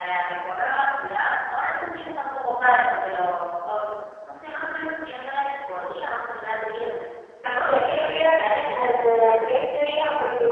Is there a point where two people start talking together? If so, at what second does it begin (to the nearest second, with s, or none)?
8 s